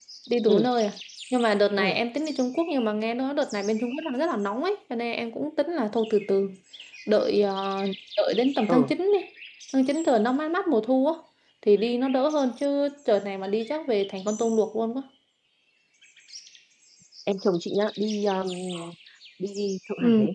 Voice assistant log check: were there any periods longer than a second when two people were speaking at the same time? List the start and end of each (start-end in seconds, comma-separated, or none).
none